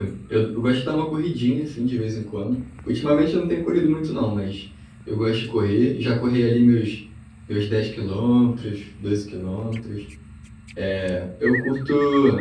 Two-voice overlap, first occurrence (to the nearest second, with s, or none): none